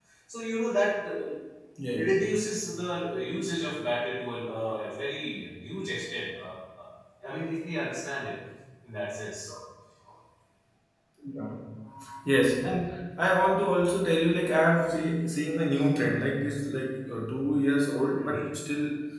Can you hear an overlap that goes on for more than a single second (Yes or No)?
No